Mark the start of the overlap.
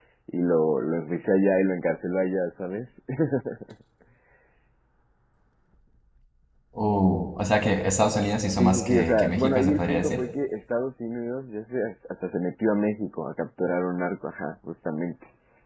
9 s

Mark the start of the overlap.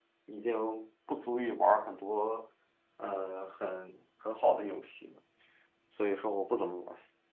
none

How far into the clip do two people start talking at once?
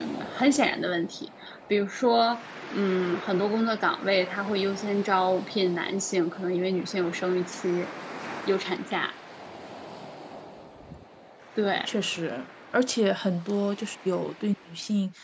none

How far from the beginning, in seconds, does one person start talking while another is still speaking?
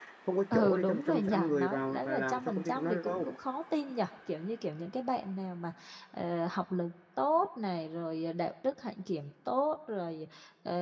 1 s

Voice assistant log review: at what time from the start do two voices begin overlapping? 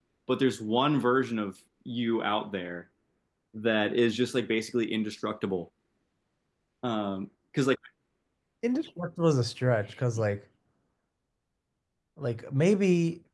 none

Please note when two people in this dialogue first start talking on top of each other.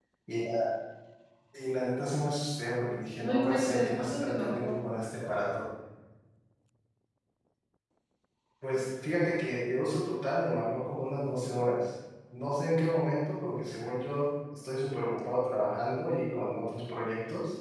3 s

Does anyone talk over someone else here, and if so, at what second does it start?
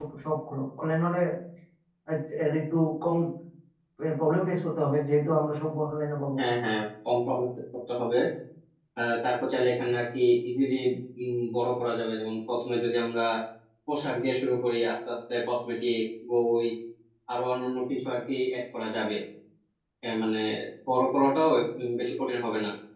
none

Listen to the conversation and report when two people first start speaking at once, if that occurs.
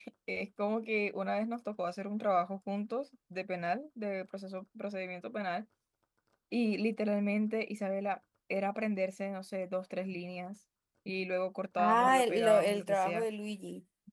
12 s

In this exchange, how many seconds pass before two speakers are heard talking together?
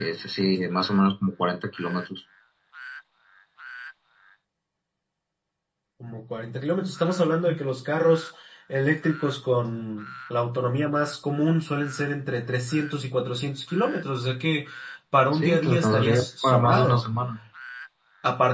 15 s

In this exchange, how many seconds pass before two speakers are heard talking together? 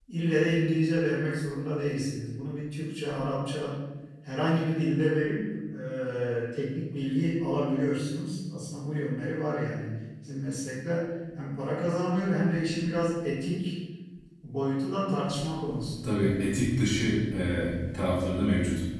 none

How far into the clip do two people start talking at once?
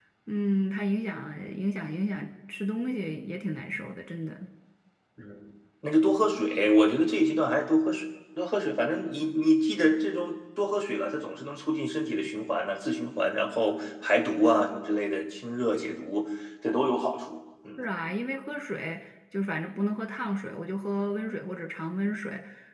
none

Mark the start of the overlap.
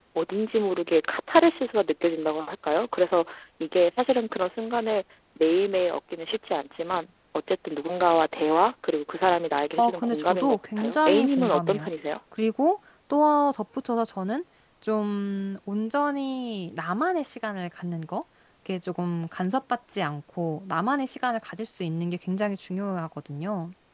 10 s

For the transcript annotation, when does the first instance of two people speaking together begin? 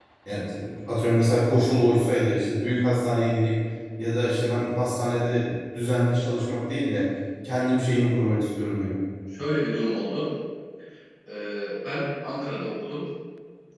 none

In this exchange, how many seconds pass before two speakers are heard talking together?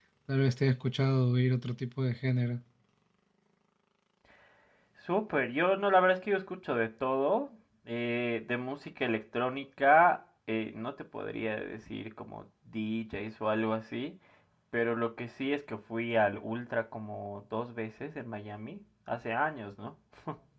none

